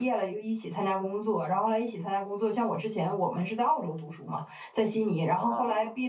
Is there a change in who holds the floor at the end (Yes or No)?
No